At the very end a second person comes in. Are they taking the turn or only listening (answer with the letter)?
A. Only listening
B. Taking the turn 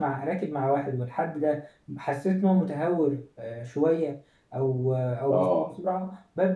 A